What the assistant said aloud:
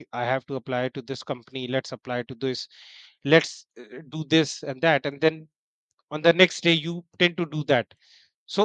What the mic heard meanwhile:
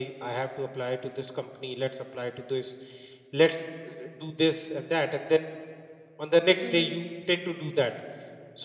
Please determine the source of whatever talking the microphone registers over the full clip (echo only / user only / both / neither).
both